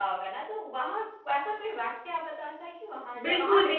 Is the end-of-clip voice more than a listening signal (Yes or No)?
Yes